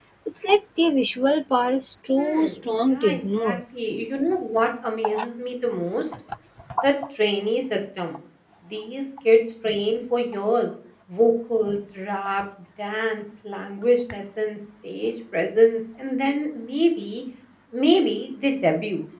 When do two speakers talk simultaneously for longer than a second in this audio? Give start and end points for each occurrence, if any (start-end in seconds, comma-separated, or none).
2.2-3.5